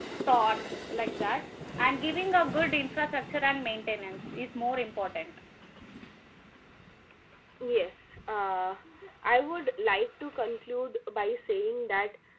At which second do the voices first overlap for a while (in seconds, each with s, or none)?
none